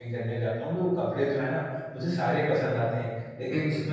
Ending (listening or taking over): listening